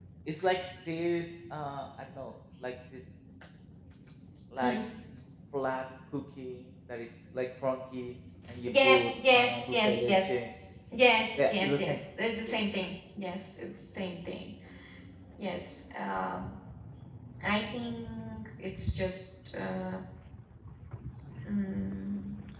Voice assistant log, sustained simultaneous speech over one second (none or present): present